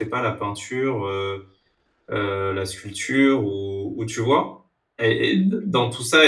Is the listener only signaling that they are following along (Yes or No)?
Yes